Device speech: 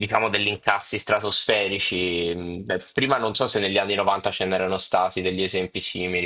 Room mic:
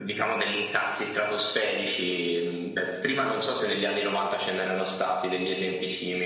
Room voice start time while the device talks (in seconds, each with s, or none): none